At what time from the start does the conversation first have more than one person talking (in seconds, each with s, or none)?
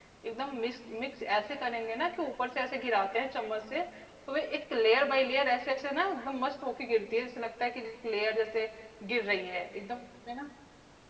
none